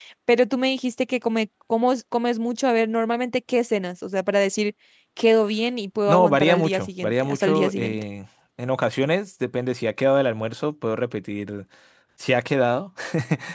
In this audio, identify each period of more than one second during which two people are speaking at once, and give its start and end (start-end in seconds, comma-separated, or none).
6.1-8.0